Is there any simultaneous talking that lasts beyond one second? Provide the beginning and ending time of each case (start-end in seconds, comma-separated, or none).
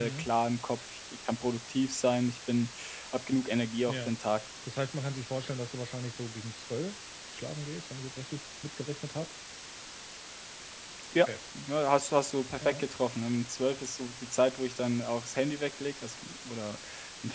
none